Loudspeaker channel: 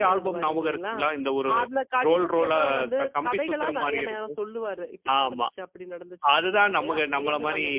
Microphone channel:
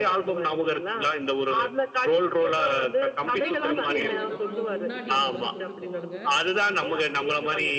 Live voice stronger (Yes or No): No